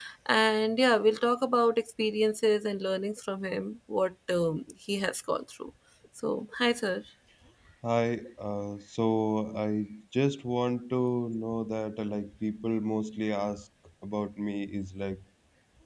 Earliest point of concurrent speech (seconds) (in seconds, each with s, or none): none